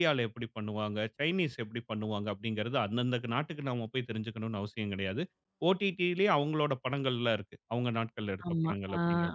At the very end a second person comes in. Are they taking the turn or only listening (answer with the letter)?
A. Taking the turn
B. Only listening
A